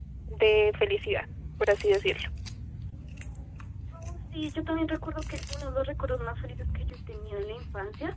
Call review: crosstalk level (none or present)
none